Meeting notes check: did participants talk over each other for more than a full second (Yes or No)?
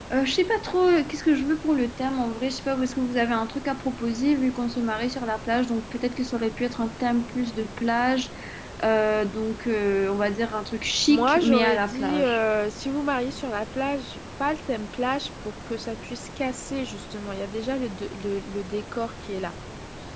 Yes